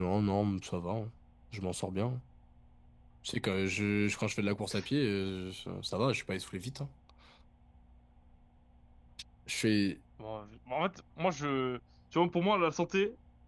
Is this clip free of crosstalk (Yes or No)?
Yes